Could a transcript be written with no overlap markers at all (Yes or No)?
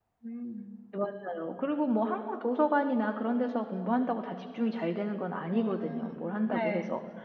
No